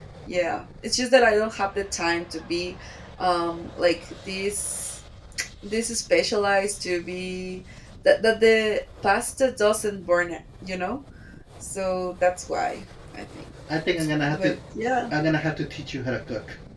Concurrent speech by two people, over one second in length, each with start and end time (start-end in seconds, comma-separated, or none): none